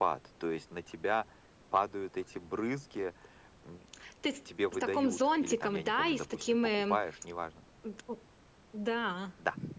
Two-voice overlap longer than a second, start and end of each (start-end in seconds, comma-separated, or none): 4.7-7.0